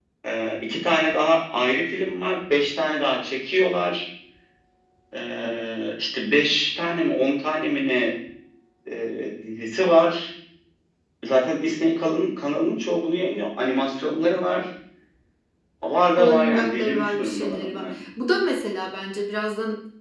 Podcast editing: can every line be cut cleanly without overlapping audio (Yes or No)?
No